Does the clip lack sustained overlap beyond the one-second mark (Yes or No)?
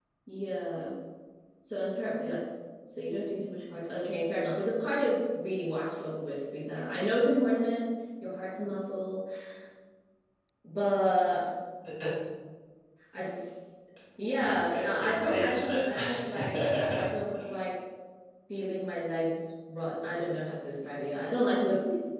No